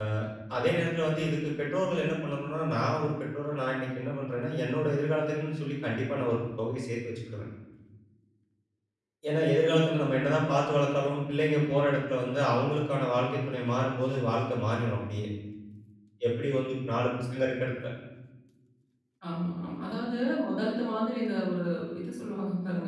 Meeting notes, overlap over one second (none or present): none